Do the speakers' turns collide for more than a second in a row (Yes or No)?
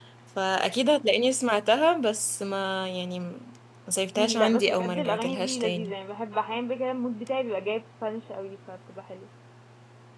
Yes